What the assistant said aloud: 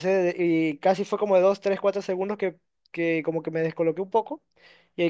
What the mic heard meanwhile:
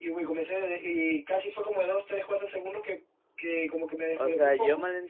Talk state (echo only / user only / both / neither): both